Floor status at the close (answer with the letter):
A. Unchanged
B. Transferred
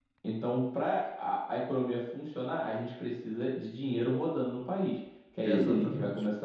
A